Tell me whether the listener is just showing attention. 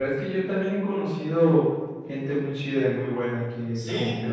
No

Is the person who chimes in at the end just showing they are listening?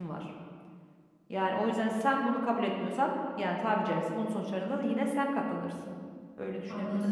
No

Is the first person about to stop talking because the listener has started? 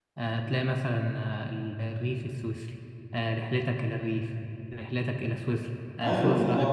No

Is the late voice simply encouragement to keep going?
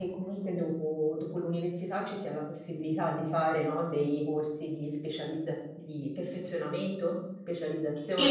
No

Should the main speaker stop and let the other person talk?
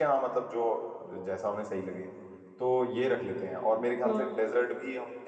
No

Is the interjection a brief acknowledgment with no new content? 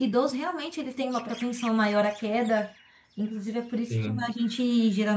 Yes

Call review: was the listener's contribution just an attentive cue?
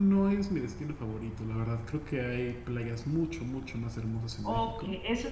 No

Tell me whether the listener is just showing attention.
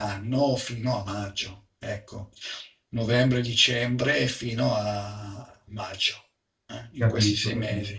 No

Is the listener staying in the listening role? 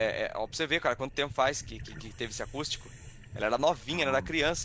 Yes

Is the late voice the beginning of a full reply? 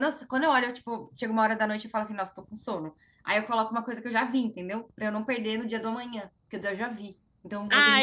Yes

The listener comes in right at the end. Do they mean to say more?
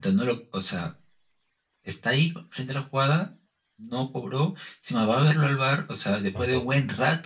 No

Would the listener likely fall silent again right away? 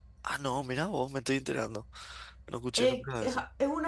No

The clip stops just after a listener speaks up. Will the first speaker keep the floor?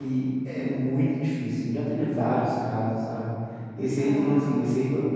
Yes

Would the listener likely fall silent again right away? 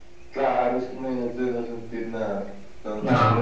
Yes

